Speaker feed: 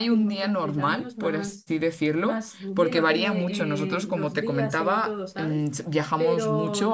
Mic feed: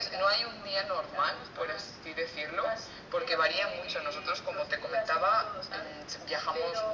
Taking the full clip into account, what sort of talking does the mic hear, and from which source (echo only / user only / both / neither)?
echo only